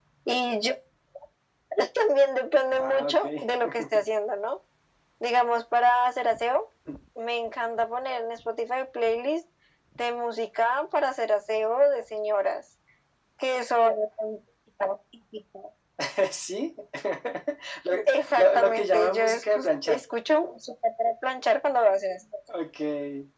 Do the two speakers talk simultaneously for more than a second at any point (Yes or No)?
Yes